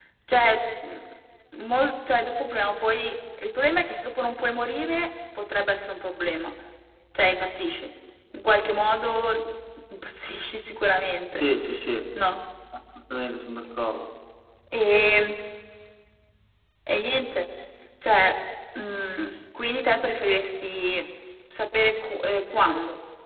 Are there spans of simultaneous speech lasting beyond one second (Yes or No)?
No